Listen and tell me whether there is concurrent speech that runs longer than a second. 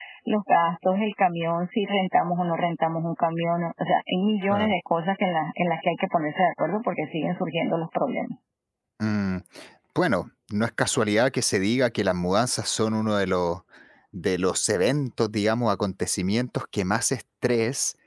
No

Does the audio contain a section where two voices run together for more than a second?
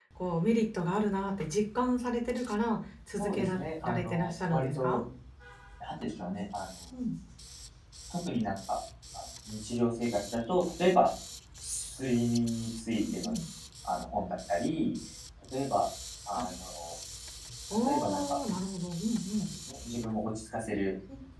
Yes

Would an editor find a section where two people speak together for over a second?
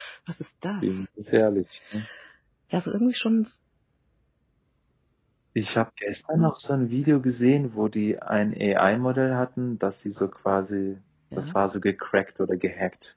No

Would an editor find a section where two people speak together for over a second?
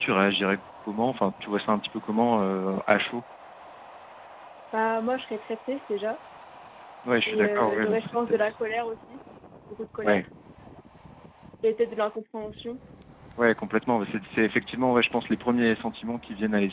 Yes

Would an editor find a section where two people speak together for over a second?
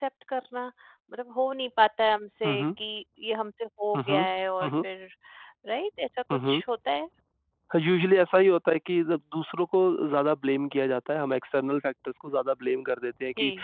No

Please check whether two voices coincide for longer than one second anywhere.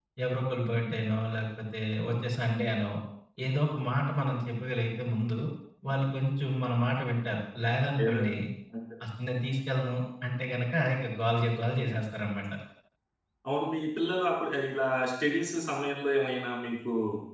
No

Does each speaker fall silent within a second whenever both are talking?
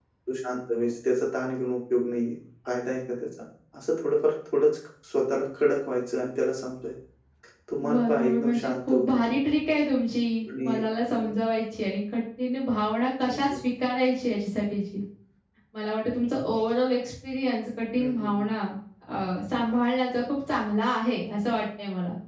No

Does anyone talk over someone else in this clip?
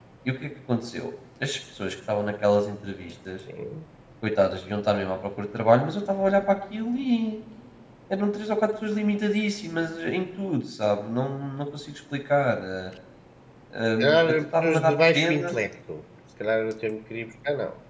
Yes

